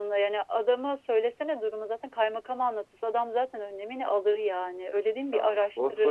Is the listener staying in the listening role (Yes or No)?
No